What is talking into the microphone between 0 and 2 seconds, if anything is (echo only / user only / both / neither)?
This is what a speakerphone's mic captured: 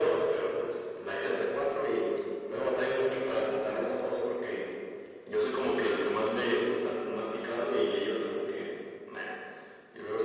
echo only